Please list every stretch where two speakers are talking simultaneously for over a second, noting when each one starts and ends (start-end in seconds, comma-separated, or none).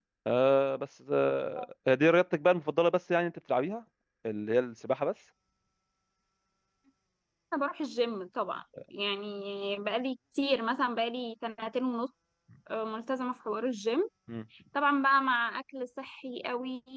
none